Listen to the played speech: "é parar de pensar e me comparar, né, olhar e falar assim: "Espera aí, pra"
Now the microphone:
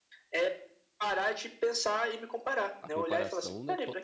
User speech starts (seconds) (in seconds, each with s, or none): 2.8 s